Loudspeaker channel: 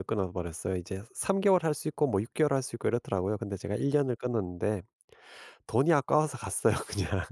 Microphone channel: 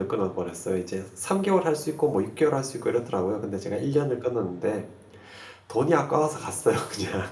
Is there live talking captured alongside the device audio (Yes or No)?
No